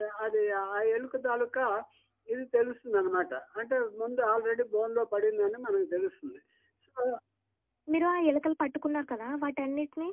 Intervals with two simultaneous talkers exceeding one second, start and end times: none

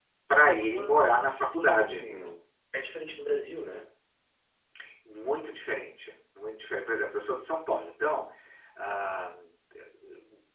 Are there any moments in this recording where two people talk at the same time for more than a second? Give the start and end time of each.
0.7-2.0

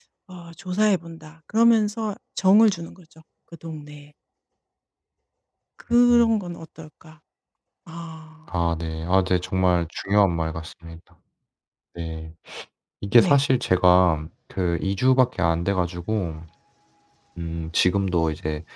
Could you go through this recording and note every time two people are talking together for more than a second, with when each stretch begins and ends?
none

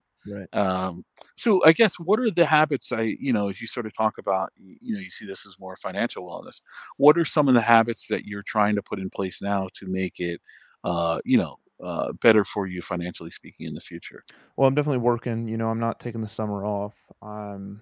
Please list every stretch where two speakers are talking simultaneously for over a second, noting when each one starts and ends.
none

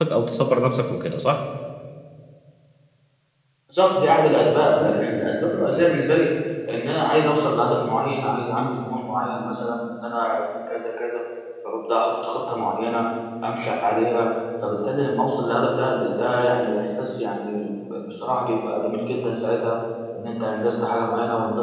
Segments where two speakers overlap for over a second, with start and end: none

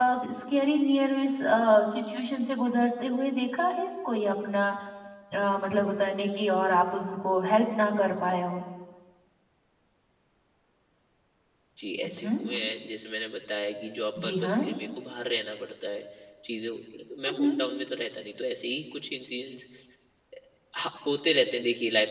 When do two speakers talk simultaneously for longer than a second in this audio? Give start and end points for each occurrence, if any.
none

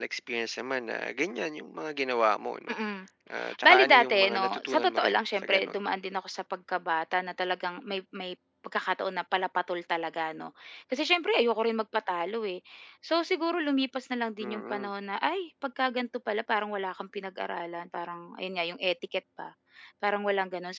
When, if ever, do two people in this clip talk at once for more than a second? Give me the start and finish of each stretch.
3.6-5.8

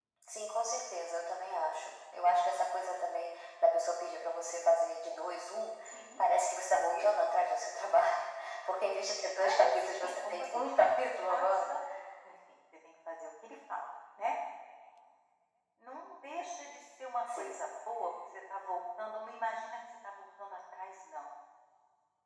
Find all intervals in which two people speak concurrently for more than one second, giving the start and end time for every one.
9.4-10.8

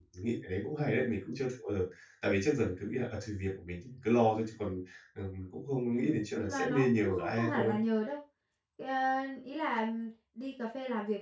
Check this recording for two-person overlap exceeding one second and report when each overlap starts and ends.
5.9-7.7

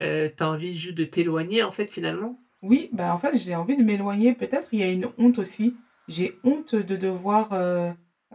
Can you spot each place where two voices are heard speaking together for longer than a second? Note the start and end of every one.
none

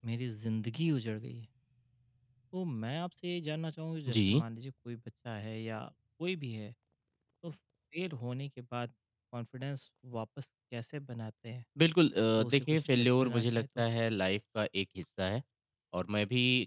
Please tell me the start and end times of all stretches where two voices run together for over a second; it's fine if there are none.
12.4-13.8

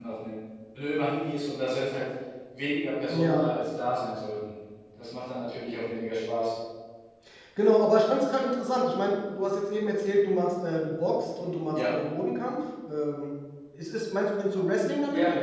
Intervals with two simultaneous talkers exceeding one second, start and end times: none

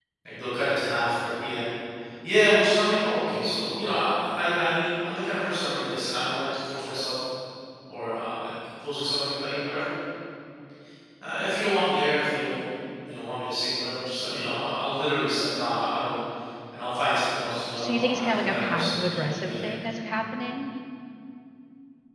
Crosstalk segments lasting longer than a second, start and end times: 17.8-19.7

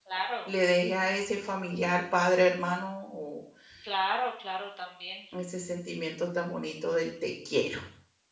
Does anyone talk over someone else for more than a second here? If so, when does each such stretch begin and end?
none

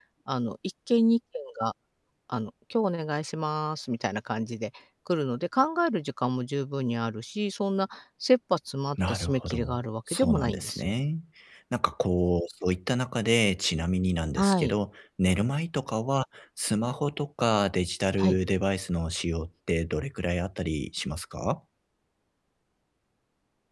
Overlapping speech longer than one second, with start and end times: 9.1-10.9

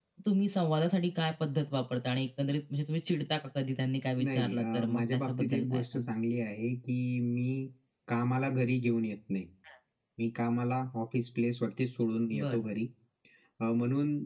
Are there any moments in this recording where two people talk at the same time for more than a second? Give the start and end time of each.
4.2-6.0

